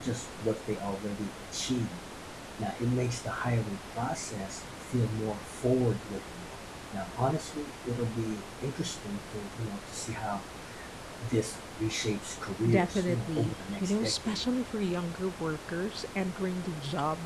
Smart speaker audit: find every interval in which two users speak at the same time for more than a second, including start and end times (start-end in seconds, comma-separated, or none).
12.7-14.4